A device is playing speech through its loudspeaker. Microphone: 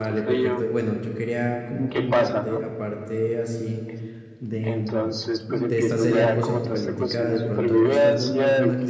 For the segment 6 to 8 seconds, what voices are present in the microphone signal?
both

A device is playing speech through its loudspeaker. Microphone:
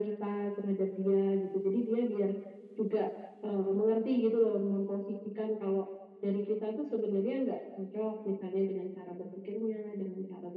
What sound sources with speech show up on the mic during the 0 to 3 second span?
echo only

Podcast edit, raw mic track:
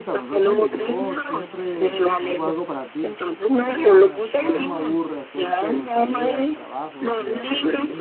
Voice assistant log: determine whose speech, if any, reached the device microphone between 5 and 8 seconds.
both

